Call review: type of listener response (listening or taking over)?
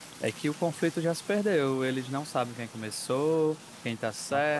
listening